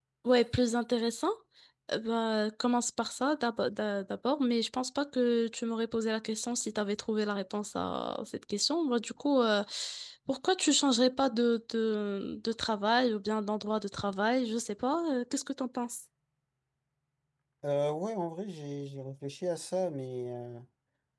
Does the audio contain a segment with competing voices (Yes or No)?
No